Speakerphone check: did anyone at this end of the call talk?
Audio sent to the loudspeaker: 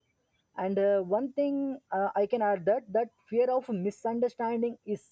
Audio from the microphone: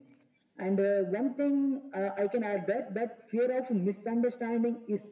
No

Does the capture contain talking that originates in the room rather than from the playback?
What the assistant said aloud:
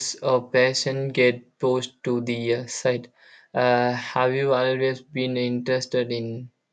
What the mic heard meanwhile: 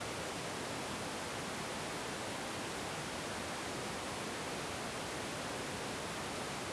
No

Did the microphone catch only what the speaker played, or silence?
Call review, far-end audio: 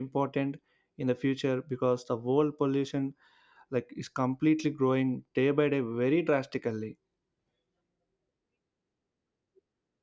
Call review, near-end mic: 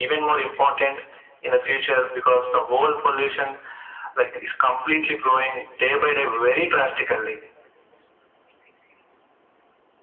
Yes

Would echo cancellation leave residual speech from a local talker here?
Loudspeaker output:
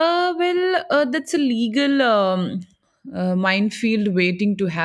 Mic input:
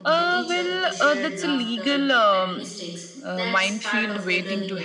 Yes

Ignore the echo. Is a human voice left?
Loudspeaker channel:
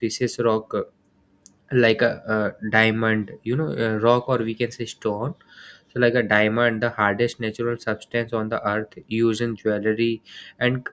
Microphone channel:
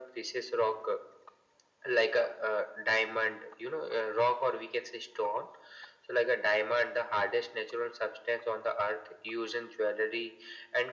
No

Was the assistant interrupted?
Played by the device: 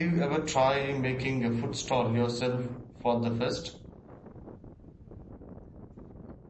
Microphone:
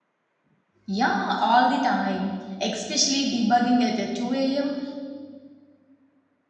Yes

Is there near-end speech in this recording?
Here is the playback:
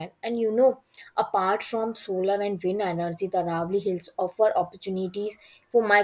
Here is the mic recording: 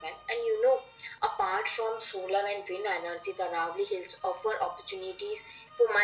No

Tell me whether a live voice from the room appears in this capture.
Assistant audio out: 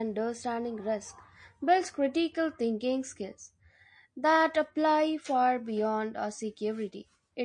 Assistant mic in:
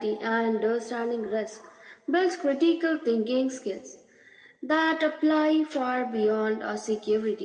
No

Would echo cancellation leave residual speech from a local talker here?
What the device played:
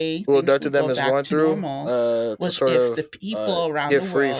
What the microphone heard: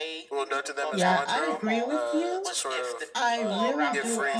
Yes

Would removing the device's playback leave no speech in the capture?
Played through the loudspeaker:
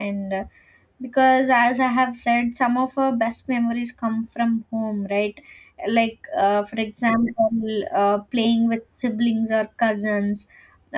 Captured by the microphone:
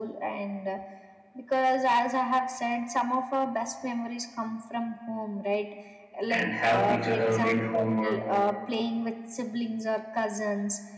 No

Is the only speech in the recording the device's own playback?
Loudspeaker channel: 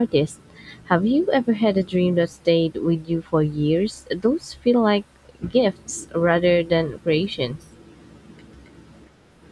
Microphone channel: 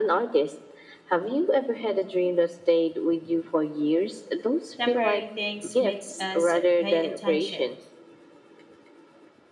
No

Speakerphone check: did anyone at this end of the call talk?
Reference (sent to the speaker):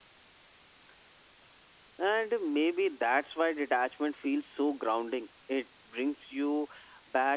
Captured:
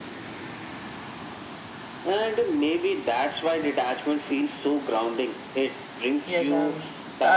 Yes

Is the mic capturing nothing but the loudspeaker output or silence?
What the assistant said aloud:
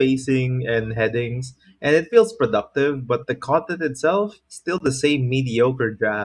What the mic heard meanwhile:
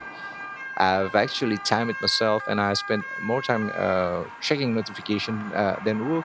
No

